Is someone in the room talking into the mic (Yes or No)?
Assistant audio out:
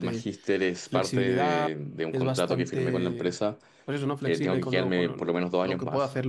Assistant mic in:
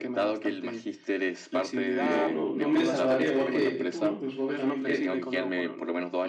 Yes